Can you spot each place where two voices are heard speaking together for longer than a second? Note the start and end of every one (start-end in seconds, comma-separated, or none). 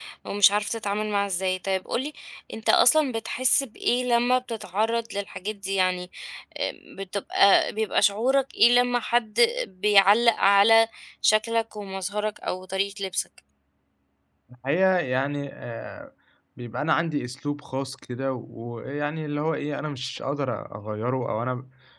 none